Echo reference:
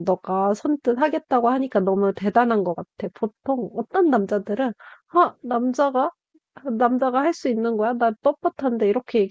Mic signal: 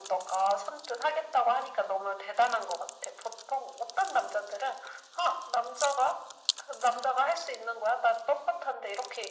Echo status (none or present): present